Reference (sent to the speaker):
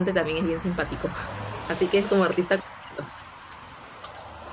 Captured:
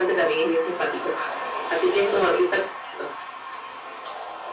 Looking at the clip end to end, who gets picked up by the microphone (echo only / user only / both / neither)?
echo only